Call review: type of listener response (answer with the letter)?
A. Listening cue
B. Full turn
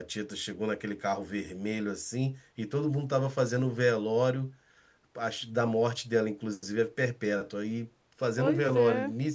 A